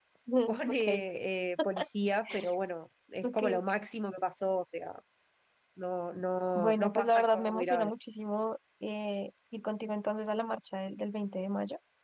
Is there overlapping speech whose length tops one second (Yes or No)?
Yes